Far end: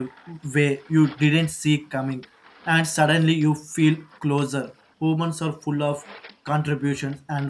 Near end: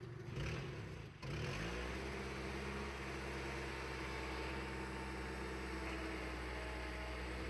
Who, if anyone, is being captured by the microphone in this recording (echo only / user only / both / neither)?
neither